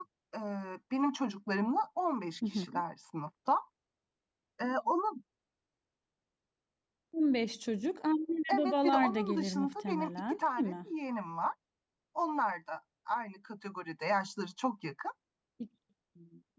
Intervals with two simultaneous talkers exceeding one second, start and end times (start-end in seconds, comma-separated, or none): 8.5-10.7